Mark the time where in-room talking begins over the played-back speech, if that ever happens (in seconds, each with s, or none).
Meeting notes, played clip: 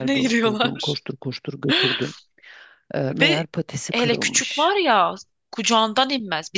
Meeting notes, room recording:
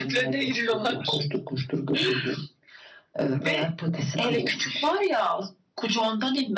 none